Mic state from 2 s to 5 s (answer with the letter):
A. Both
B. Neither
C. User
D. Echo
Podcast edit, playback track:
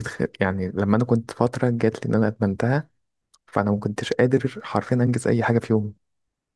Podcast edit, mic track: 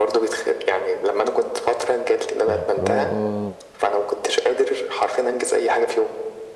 A